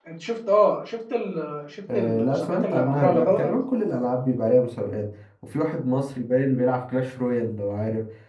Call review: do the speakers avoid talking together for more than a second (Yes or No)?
No